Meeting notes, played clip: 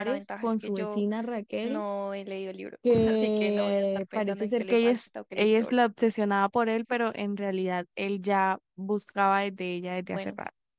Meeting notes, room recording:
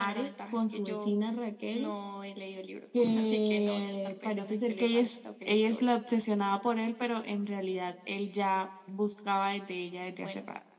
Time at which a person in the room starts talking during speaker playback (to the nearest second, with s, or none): none